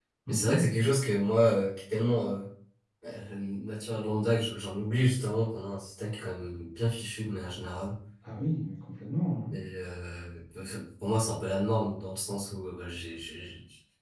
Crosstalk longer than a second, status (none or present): none